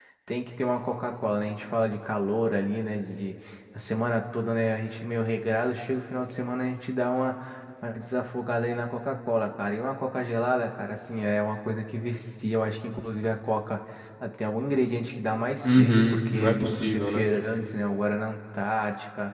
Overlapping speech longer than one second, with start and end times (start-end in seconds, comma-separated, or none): 15.6-17.2